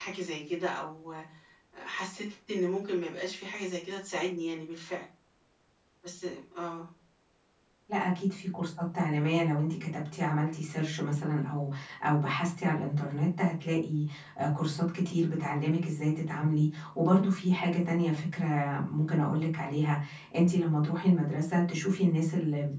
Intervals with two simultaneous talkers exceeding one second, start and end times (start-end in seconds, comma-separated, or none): none